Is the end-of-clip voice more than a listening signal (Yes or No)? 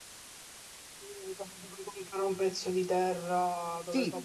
Yes